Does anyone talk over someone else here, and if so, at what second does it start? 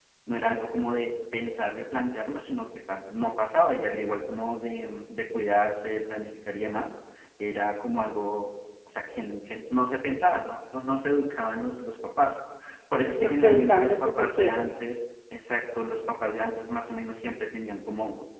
13.2 s

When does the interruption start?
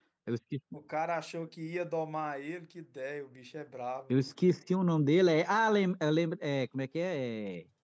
none

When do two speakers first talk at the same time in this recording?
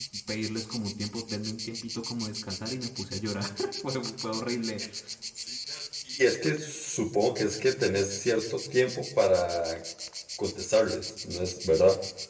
none

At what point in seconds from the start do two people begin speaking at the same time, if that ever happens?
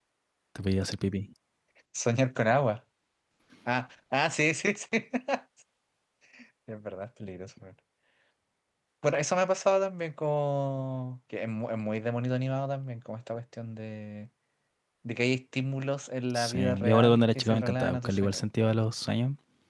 16.4 s

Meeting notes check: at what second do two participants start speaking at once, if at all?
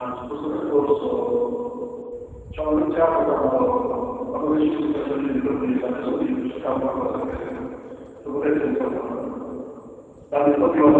none

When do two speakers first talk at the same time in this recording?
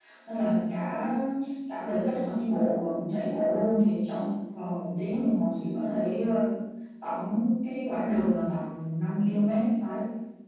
none

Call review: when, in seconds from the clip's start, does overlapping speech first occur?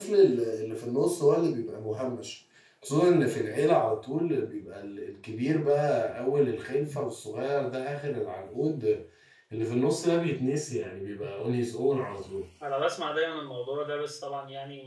none

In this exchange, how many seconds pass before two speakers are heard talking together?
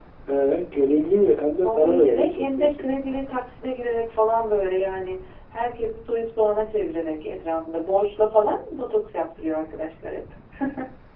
1.6 s

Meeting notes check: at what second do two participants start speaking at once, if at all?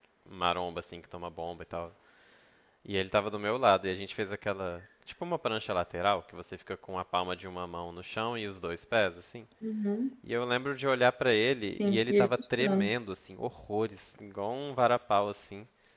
11.7 s

